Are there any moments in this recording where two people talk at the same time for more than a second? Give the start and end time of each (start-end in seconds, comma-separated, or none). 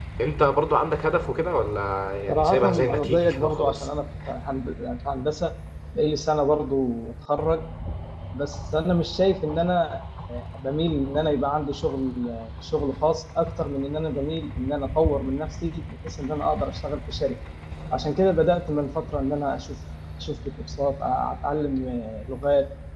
2.3-3.9